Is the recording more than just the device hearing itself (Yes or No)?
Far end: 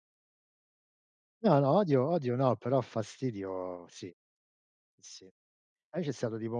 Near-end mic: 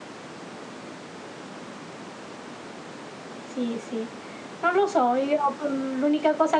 Yes